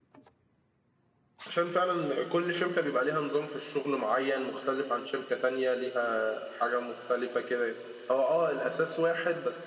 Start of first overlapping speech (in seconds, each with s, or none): none